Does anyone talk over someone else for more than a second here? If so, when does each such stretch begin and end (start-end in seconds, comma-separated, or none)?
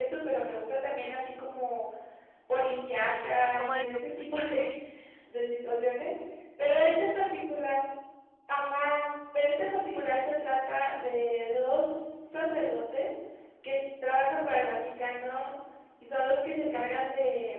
3.2-4.7